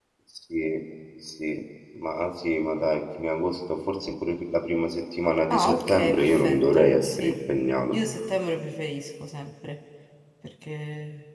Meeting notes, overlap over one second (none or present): present